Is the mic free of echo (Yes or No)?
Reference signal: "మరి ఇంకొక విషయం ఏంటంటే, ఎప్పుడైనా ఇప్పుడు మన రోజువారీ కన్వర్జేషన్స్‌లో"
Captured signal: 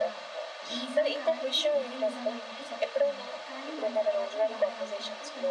No